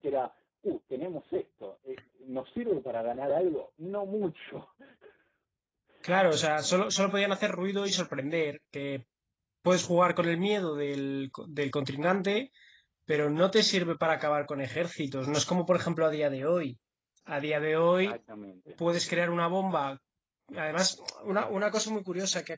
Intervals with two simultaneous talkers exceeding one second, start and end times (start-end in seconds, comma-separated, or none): none